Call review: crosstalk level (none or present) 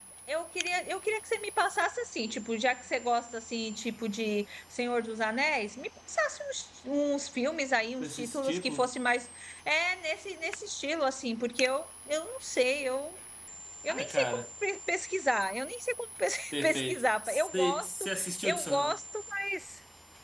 present